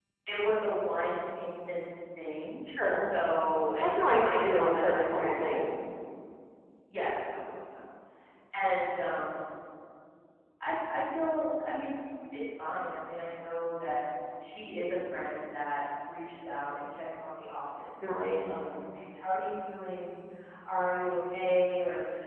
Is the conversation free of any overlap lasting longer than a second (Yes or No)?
No